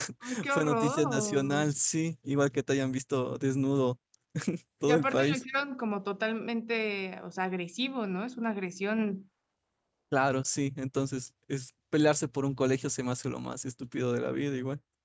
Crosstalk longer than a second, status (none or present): present